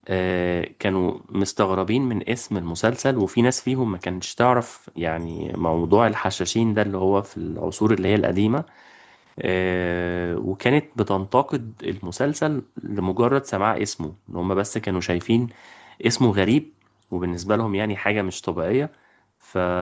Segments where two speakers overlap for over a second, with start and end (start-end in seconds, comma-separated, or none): none